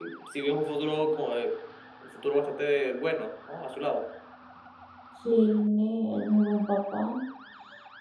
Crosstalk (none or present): none